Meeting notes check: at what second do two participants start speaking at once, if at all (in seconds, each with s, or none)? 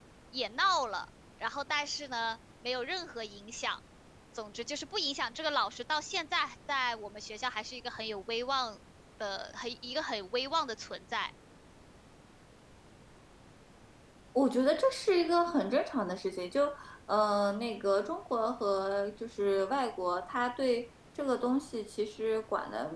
none